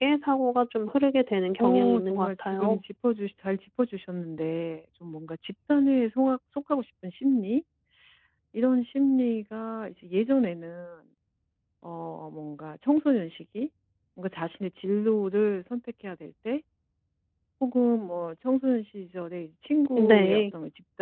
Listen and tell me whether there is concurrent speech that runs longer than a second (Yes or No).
Yes